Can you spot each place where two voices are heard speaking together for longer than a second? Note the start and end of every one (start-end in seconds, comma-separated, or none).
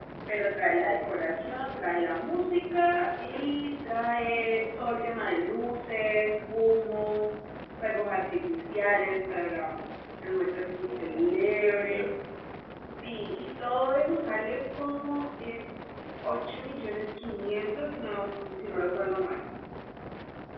10.9-12.1